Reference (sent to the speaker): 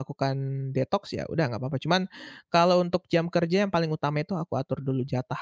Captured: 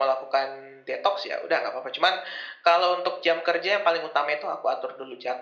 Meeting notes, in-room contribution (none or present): none